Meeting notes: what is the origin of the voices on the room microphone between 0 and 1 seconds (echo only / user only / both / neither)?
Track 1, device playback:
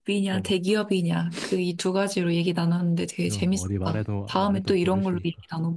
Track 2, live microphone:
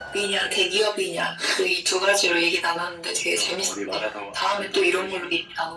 echo only